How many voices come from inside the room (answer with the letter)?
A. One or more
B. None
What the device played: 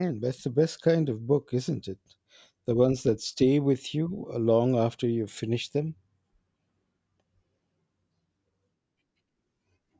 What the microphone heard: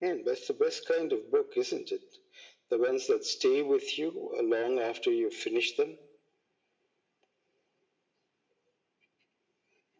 B